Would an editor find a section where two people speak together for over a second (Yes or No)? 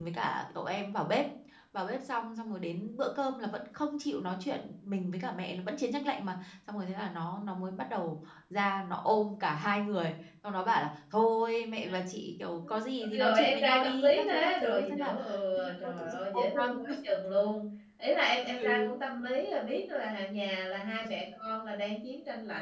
Yes